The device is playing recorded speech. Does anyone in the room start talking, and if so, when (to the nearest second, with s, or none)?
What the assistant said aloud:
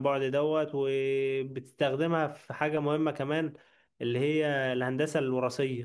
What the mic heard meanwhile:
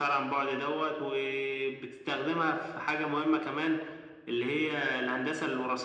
none